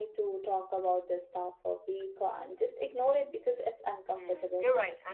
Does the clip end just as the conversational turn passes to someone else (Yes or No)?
Yes